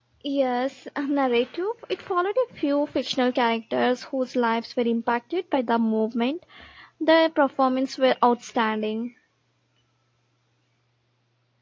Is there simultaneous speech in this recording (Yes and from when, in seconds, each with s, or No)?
No